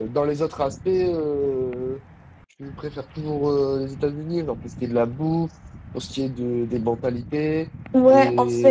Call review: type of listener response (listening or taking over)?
taking over